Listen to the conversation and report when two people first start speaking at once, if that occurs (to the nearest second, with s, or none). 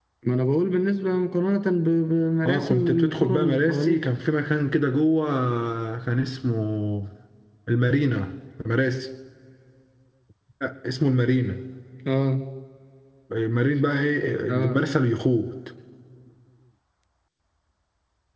2 s